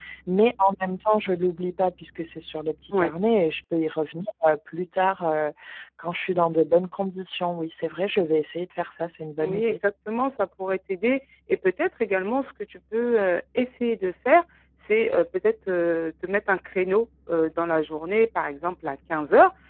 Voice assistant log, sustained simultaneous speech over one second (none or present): none